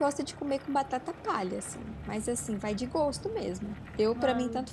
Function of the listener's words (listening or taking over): listening